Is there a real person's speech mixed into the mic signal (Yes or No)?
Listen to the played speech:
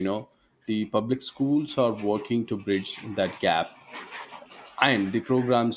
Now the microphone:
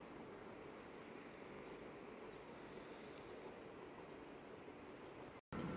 No